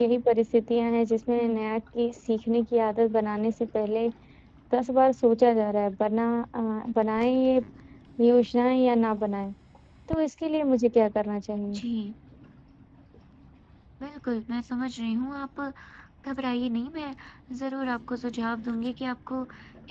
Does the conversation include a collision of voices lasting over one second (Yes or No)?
No